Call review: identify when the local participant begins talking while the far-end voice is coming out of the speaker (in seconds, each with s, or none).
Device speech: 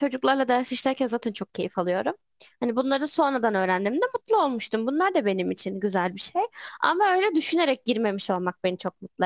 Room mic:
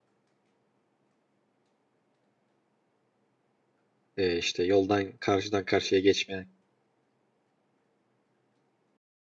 4.2 s